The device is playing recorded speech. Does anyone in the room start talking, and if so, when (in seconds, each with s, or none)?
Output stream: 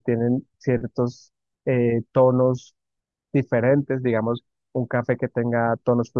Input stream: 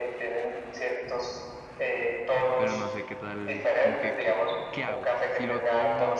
2.6 s